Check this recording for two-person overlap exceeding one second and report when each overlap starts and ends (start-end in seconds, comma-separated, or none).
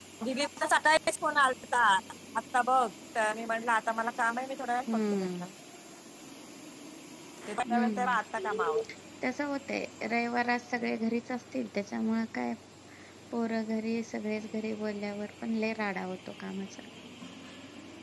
none